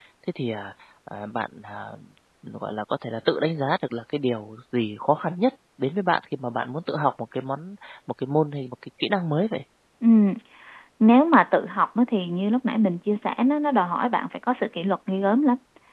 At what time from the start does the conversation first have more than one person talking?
none

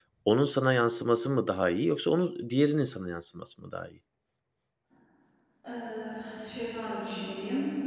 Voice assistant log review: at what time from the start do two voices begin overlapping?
none

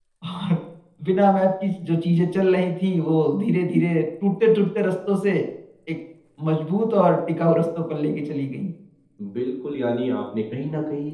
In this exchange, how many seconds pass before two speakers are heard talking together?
none

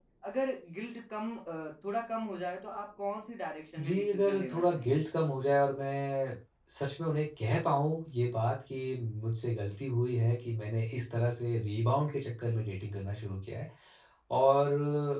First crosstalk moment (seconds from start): 3.8 s

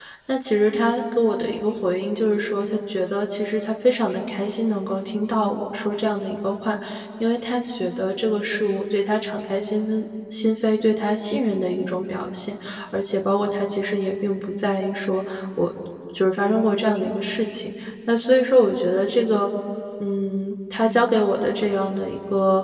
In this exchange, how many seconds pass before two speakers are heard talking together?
none

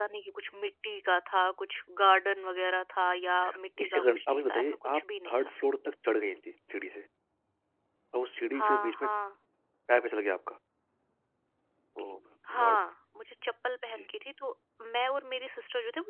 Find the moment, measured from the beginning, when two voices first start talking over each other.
3.8 s

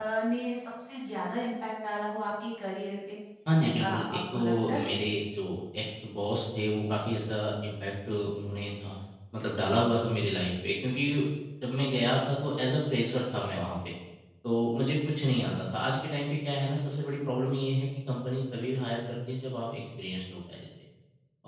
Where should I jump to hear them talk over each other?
3.7 s

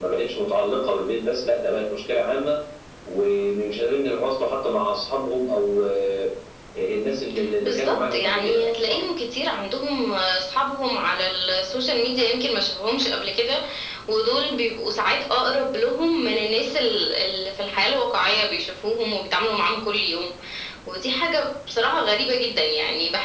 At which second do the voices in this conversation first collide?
7.6 s

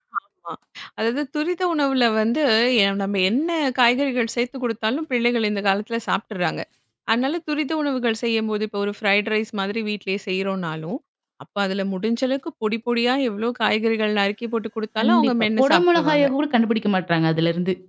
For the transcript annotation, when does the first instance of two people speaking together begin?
15.0 s

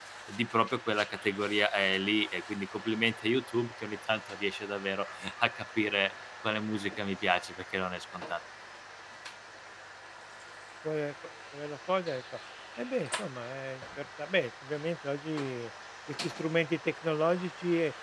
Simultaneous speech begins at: none

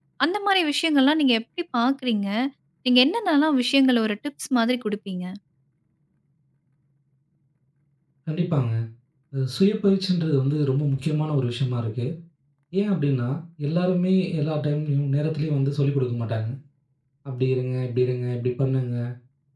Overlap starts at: none

